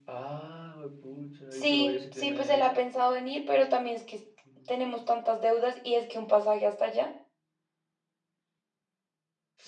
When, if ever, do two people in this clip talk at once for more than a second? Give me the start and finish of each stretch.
1.5-2.8

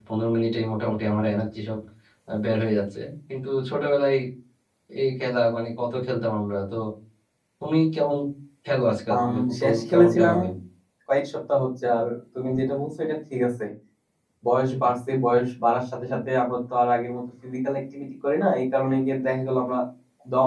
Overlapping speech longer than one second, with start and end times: 9.1-10.4

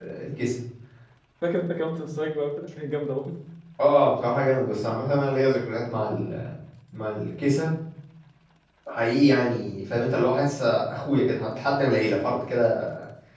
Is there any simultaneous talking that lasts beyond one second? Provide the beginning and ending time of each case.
none

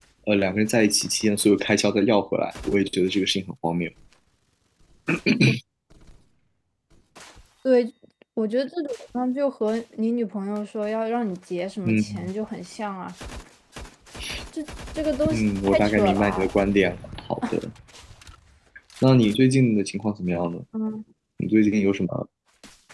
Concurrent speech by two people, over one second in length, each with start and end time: 15.3-16.5

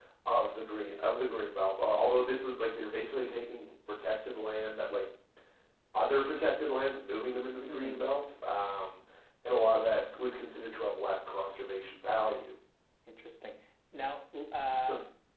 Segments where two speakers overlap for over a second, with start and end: none

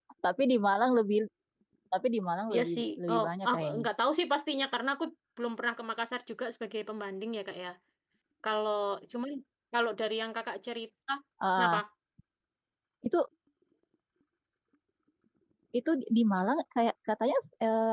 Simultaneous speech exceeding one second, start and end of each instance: 2.5-3.9

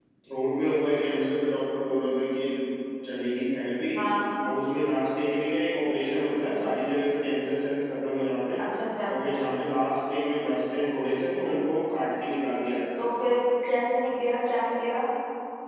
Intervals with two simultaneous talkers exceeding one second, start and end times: none

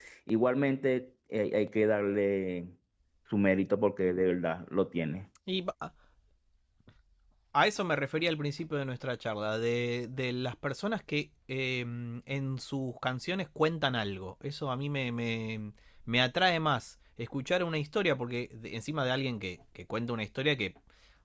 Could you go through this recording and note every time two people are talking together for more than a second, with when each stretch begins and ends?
none

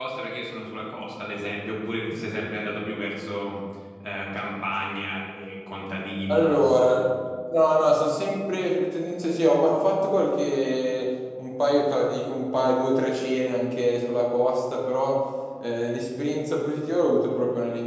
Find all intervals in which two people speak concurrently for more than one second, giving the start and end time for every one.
none

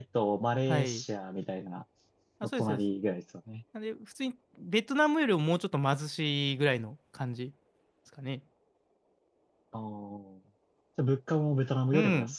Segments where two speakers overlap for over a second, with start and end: none

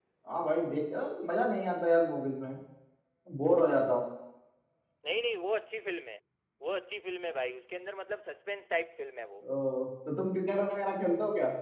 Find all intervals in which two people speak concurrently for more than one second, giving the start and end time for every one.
none

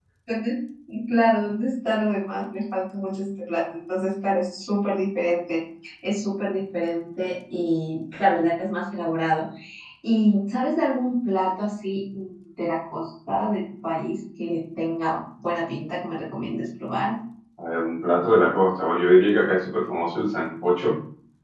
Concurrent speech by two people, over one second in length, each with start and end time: none

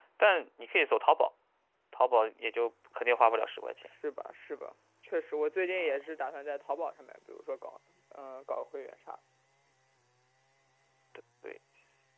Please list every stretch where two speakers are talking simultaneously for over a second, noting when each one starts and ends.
none

